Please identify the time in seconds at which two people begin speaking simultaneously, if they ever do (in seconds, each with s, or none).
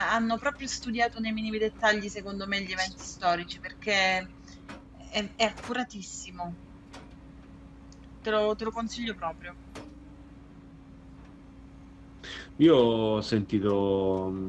none